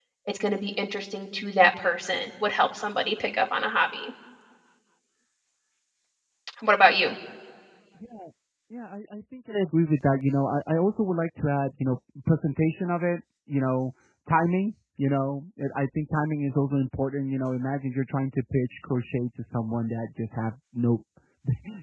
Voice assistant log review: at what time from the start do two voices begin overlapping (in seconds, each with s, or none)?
none